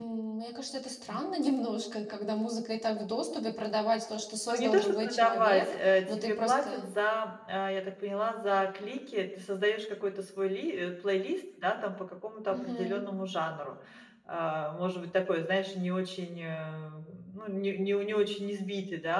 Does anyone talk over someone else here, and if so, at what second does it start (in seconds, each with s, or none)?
4.5 s